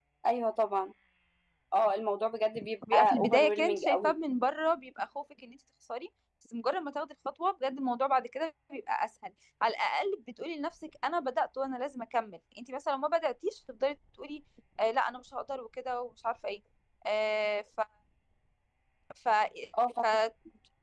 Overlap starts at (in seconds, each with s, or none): 2.9 s